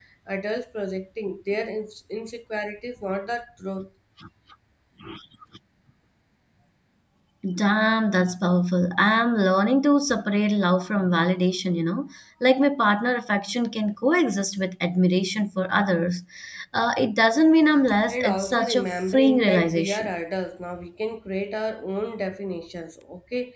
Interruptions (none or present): present